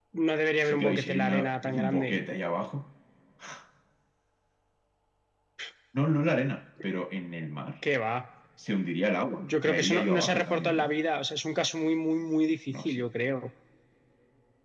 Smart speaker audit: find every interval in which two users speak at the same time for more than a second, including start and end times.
0.6-2.2, 9.4-10.9

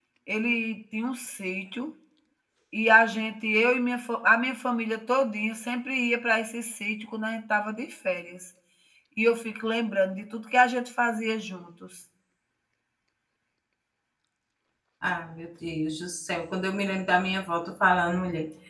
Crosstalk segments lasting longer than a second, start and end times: none

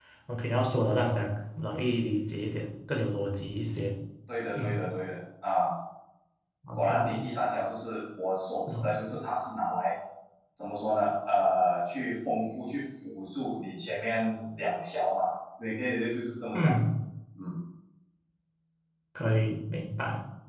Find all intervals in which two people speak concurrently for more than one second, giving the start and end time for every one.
none

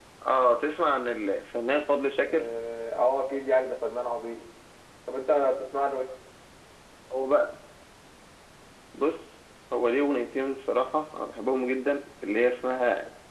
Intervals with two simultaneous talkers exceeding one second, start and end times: none

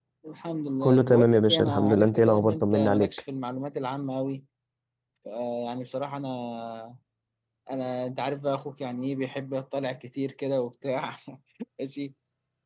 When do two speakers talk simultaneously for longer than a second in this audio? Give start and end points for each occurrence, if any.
0.8-3.1

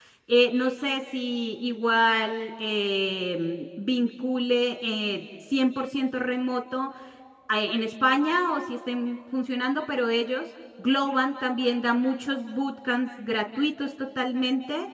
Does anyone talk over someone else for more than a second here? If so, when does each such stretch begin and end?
none

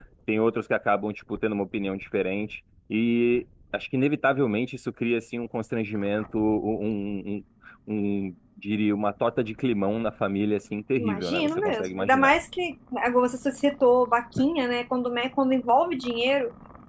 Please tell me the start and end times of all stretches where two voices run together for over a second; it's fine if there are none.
10.9-12.3

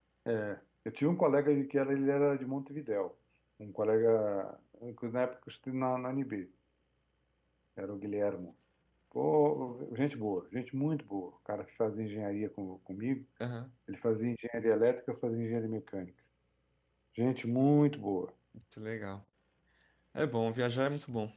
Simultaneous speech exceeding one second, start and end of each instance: none

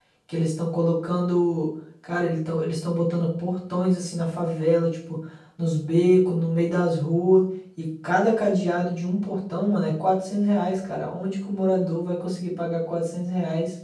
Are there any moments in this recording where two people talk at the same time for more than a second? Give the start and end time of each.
none

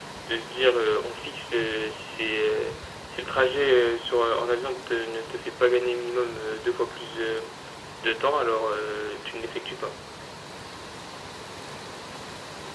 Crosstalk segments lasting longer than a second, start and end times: none

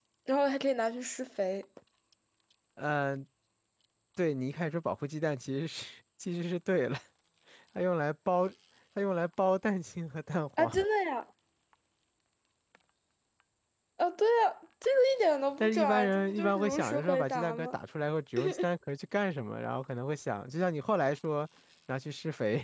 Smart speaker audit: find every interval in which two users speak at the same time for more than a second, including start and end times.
15.6-17.8

